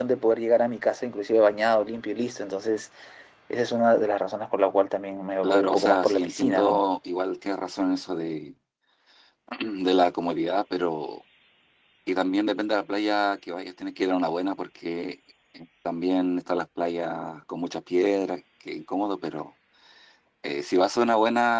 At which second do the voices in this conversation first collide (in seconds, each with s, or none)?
5.4 s